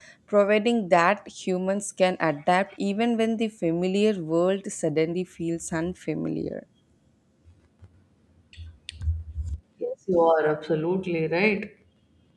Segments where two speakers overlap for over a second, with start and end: none

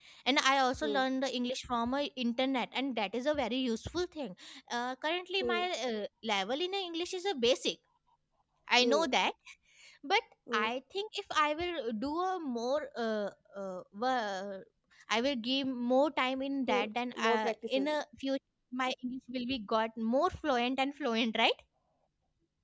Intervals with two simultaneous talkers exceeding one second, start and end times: 16.7-17.9

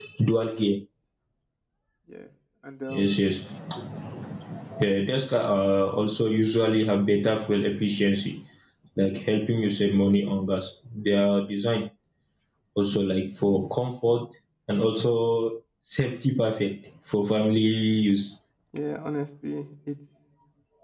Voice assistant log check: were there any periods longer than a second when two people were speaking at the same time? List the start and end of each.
none

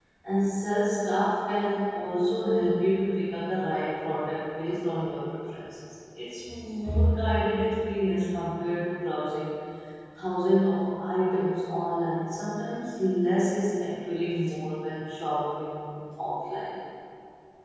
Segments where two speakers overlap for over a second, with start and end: none

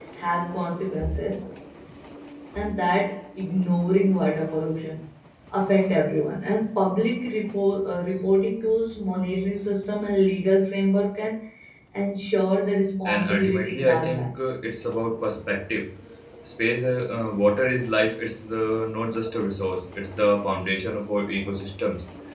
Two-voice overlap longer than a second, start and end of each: 13.1-14.3

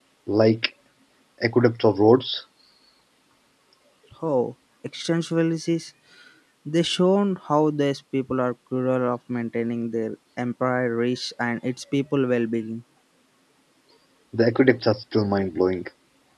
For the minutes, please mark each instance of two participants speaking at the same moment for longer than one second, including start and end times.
none

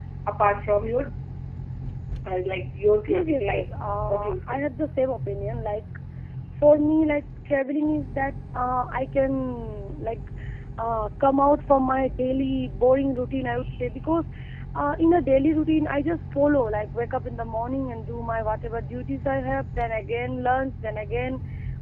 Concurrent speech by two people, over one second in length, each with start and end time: 3.1-4.6

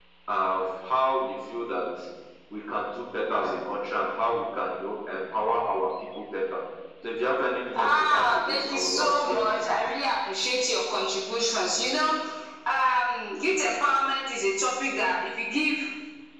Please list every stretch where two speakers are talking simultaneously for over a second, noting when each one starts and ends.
7.8-9.8

